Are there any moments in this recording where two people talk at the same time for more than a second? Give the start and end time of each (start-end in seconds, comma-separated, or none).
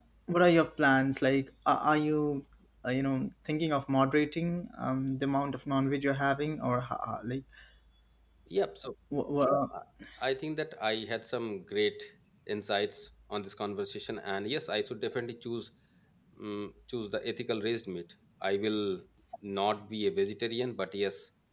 none